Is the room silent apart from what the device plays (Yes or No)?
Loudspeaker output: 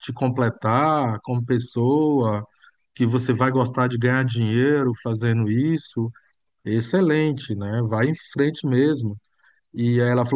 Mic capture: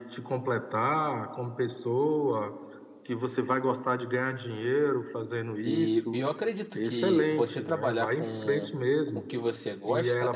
No